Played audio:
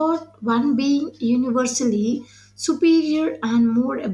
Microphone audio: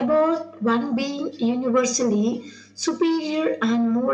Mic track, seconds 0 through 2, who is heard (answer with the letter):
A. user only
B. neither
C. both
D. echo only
D